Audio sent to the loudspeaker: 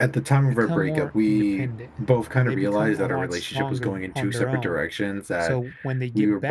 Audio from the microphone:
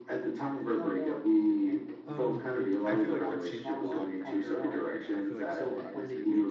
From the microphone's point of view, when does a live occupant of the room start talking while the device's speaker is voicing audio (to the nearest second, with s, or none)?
2 s